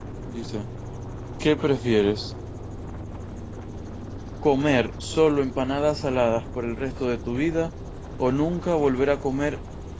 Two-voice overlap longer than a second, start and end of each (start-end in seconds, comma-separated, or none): none